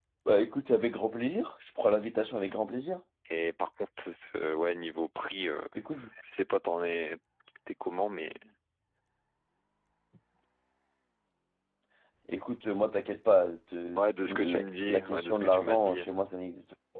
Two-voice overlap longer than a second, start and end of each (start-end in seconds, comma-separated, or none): 14.0-16.0